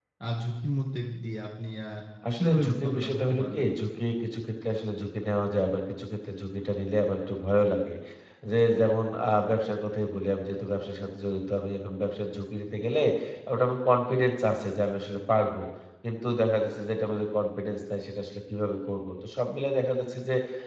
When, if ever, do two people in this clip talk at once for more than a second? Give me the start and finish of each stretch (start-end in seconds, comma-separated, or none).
2.4-3.7